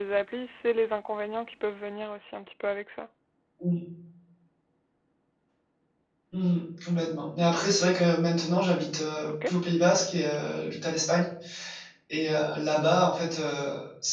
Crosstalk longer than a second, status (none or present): none